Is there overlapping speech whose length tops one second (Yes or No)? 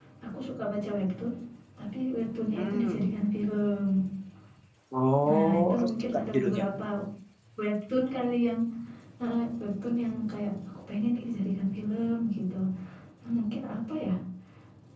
Yes